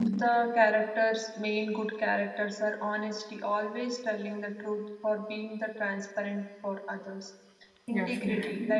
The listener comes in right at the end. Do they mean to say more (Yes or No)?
No